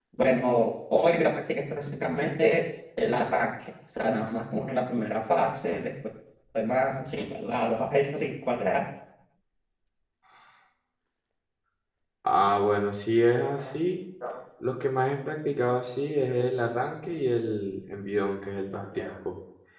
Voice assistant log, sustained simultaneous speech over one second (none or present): none